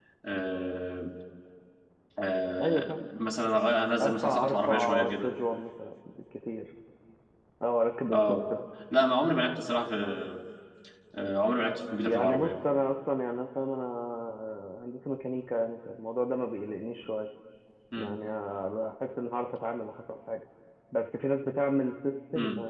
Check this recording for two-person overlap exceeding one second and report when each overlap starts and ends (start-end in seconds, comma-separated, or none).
4.0-5.3